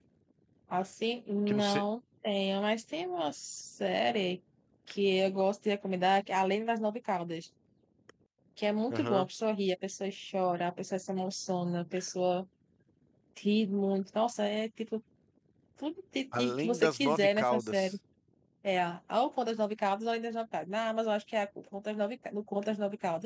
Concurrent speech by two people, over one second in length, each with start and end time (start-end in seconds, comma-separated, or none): 16.4-18.0